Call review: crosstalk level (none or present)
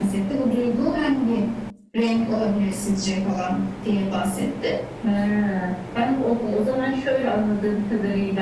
none